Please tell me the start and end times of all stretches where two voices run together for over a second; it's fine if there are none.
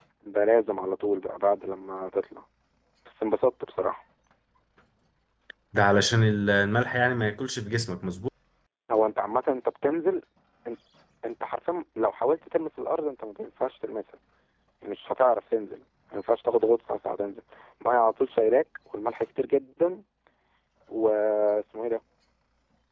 none

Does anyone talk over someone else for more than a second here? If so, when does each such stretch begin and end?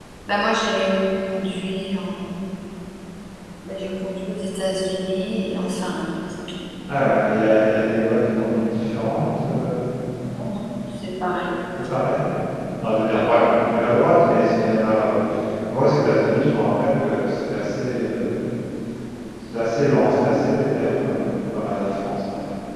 none

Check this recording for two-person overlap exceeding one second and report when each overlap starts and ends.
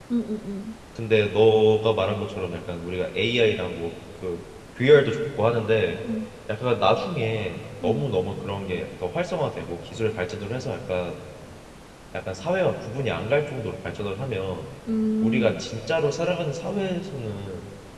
none

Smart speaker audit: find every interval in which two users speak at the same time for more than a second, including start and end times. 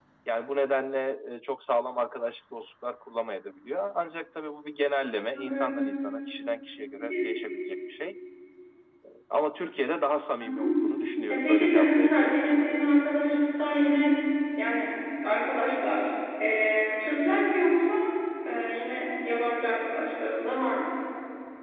11.3-12.8

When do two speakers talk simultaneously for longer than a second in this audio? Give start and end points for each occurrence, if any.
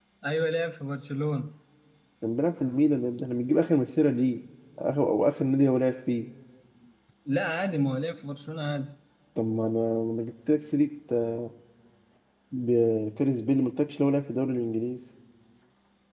none

